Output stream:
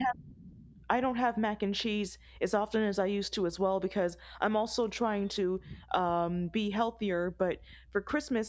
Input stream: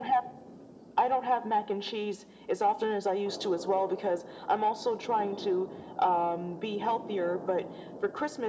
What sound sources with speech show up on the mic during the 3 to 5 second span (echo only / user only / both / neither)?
echo only